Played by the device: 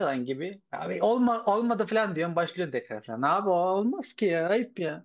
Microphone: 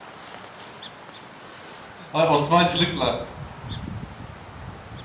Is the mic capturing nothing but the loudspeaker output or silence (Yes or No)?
No